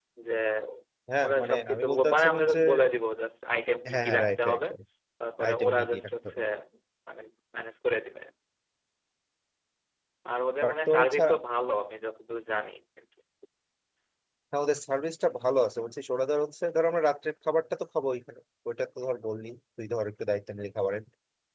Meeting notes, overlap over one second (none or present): present